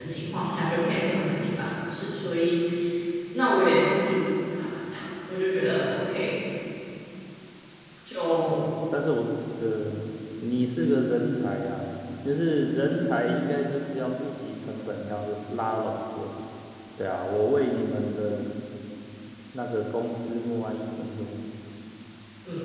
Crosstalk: none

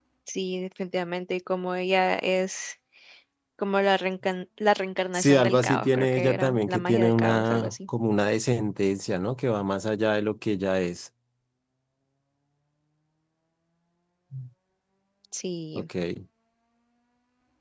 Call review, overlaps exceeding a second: present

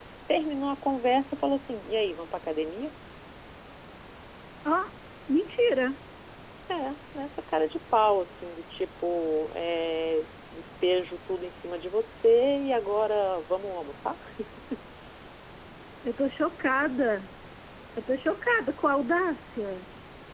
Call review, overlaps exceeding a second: none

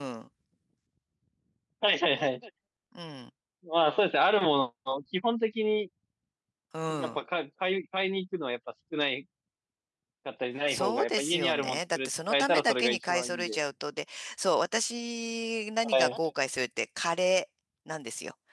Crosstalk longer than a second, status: present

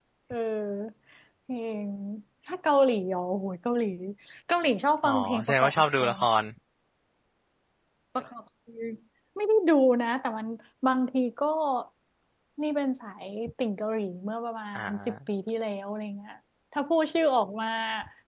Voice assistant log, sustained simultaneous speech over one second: present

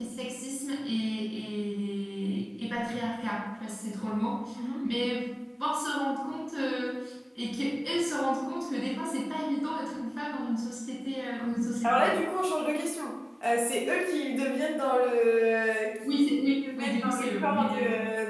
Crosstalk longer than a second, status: present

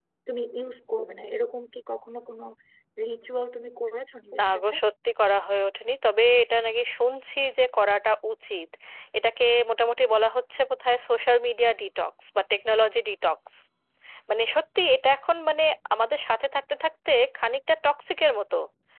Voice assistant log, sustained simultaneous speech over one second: none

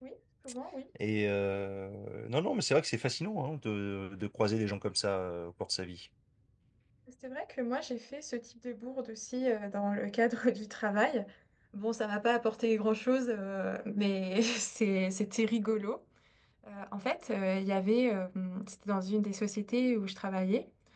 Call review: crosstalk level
none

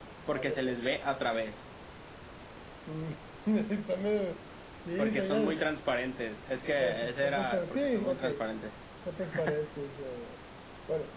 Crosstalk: present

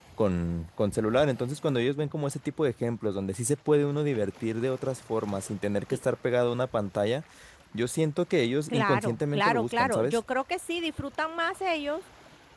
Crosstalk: present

